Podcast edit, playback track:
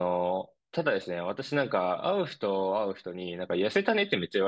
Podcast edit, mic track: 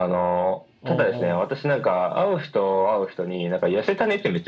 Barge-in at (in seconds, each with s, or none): 0.8 s